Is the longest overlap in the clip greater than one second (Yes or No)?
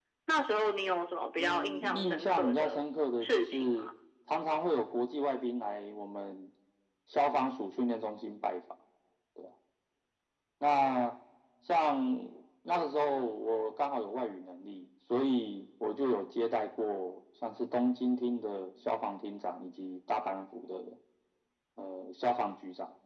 Yes